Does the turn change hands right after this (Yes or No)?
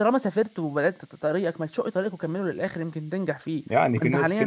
Yes